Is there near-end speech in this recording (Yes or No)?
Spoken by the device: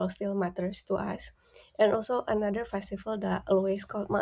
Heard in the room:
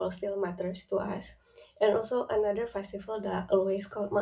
No